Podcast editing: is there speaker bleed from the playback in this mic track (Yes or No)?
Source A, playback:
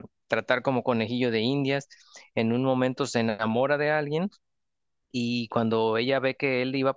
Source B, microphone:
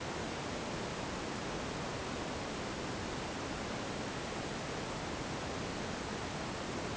No